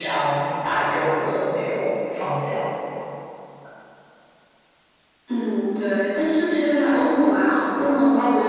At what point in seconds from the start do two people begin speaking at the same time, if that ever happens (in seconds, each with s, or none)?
none